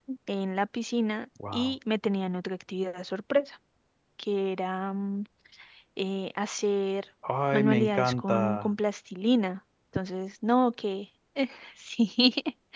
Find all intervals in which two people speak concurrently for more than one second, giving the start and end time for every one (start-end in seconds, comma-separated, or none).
7.5-8.7